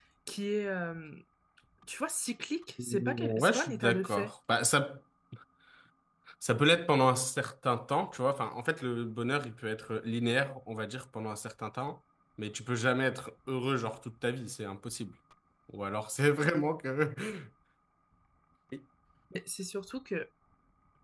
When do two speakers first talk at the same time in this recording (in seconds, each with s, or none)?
2.8 s